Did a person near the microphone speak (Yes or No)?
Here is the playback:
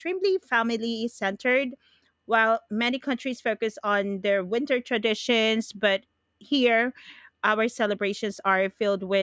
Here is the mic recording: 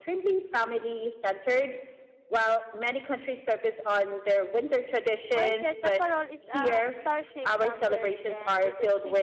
Yes